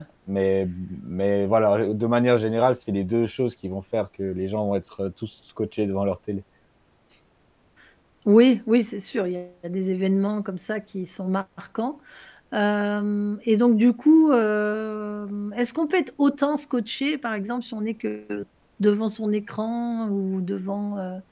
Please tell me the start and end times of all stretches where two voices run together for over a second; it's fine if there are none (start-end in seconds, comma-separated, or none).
none